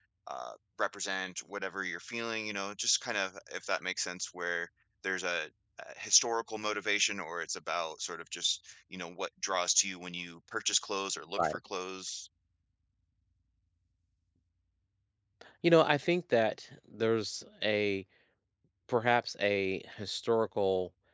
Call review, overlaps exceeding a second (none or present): none